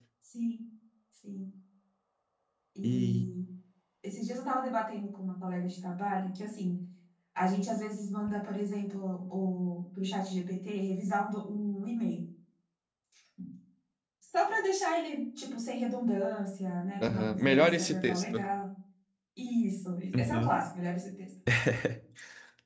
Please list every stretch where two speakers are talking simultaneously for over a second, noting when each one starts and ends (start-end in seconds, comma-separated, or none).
17.0-18.4